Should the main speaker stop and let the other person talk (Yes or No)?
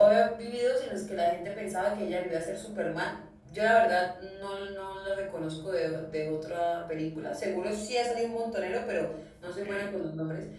No